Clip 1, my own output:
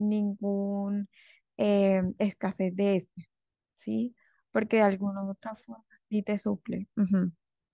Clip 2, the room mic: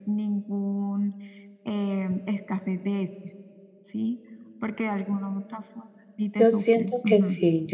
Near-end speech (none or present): present